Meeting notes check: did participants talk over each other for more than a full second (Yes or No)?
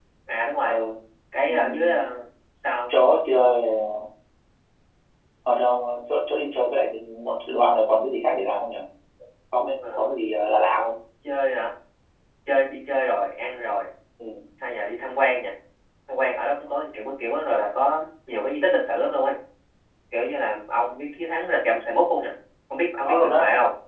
No